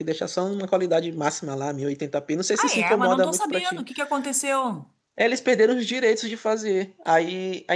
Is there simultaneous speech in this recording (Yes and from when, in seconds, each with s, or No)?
Yes, from 2.5 s